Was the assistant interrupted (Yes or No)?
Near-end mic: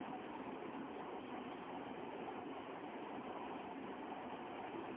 No